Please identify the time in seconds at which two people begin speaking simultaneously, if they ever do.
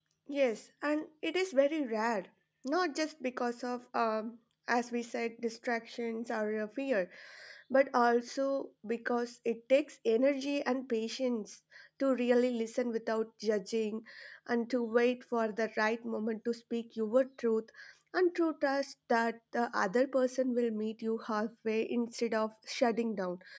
none

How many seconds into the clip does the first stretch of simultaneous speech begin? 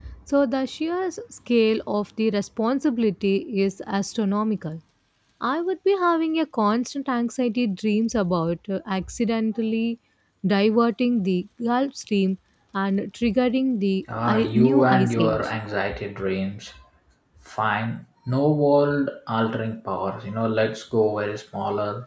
14.1 s

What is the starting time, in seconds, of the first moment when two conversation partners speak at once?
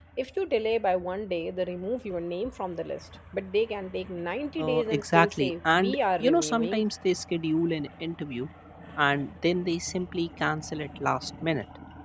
4.6 s

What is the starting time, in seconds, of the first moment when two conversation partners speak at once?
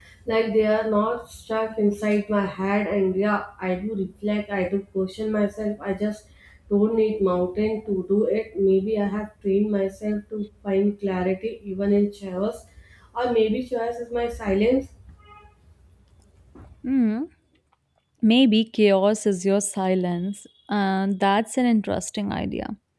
none

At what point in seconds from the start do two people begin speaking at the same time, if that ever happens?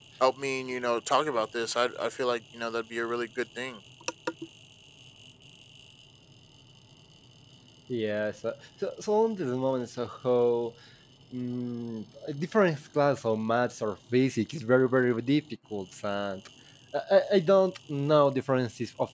none

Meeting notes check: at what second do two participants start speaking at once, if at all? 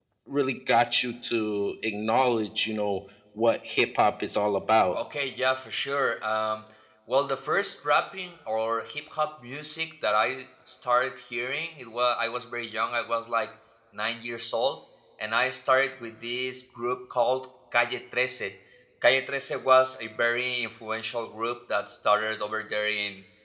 none

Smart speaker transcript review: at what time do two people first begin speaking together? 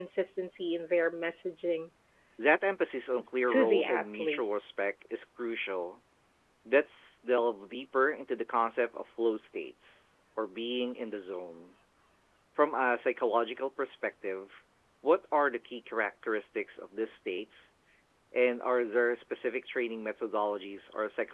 3.5 s

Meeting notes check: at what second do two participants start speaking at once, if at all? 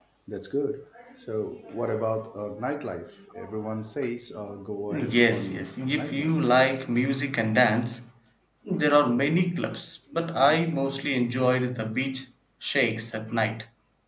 4.9 s

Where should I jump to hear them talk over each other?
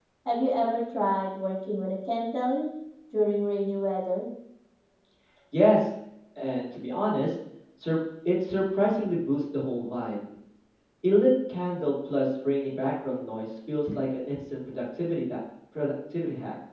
none

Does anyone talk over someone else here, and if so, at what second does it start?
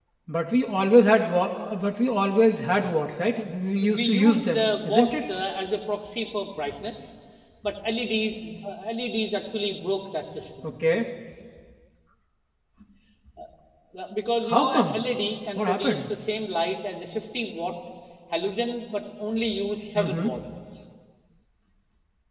3.9 s

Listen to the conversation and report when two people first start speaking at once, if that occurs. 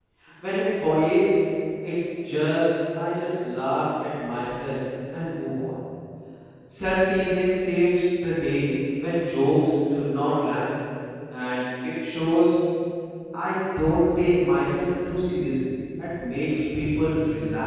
none

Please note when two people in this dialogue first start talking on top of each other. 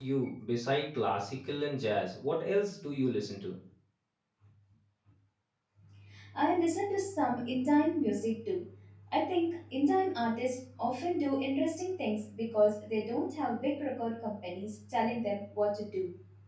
none

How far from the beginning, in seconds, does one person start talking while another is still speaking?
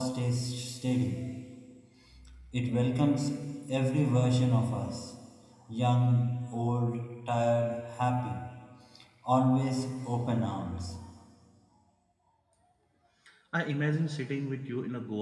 none

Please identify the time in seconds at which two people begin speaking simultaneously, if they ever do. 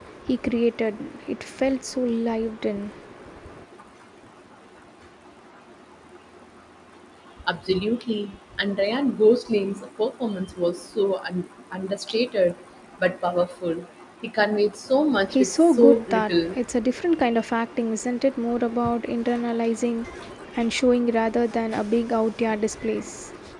15.3 s

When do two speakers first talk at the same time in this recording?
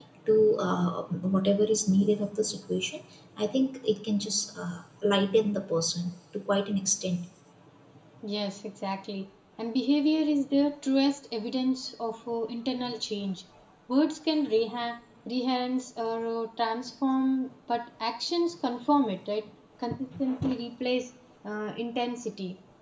none

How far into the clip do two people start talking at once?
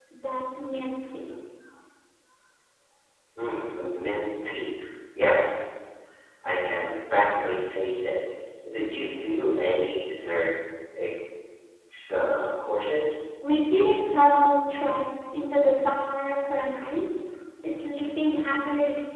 none

